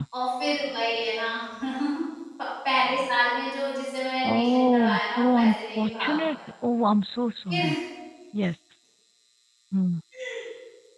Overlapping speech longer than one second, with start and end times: 4.3-6.4

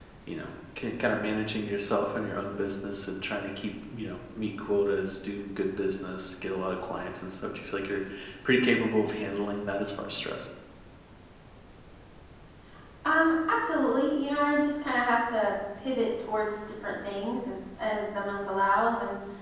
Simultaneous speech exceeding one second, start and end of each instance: none

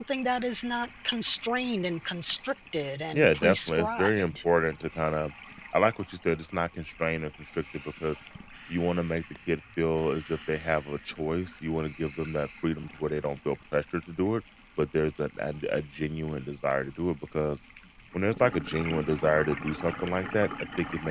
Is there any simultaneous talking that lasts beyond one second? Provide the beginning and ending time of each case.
3.1-4.3

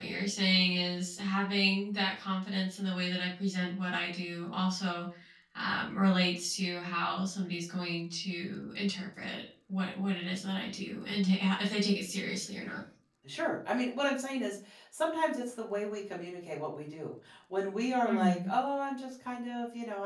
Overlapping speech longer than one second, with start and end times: none

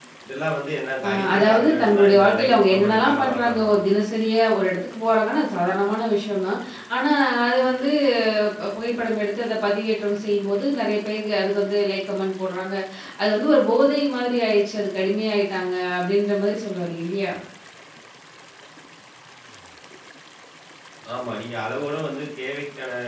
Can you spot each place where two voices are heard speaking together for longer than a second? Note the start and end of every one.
1.0-3.7

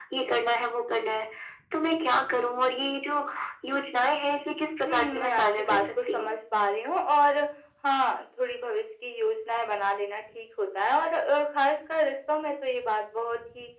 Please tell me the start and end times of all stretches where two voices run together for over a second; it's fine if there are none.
4.8-6.3

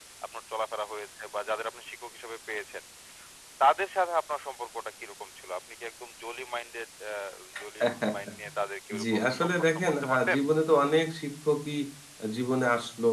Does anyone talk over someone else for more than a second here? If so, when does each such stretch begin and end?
9.0-10.4

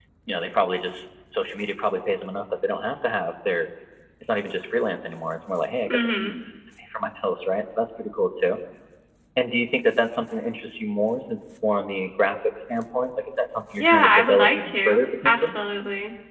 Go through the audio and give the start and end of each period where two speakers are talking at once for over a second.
13.8-15.5

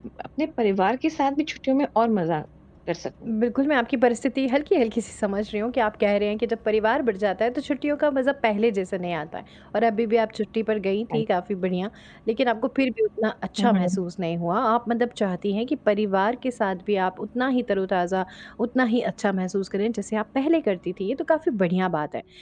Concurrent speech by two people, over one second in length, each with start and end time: none

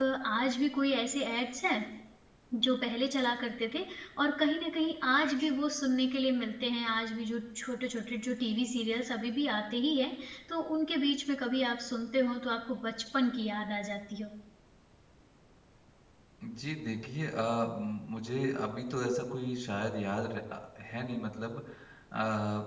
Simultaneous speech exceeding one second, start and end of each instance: none

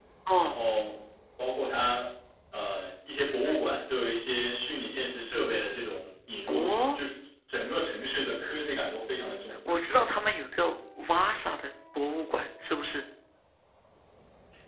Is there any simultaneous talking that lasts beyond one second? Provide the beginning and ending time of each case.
none

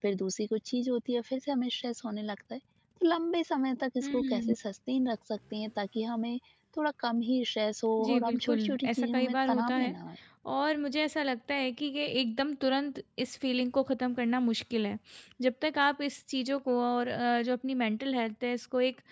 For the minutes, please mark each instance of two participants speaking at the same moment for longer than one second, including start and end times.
8.0-9.9

